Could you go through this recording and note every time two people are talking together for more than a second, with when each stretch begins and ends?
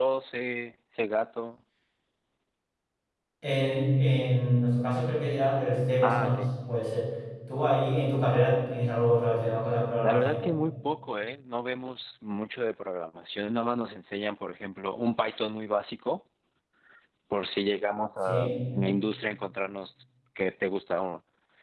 none

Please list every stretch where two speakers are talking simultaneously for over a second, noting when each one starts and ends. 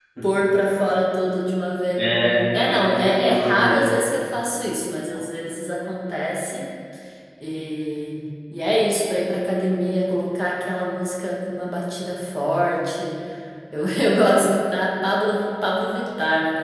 2.0-3.8

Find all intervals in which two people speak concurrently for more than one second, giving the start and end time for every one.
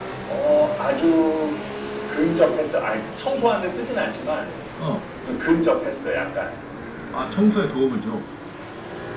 none

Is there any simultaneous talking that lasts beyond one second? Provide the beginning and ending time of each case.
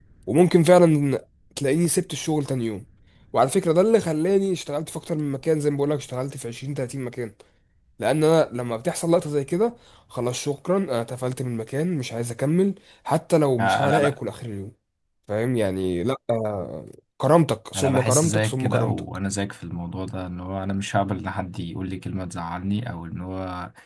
17.7-19.0

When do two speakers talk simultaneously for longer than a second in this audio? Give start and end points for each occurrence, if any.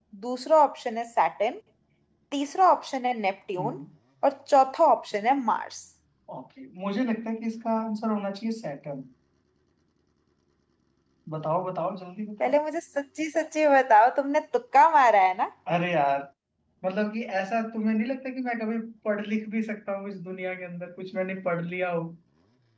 none

